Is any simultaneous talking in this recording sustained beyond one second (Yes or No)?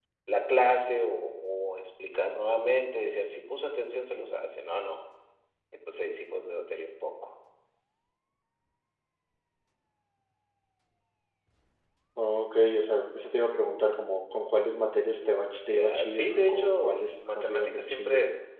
Yes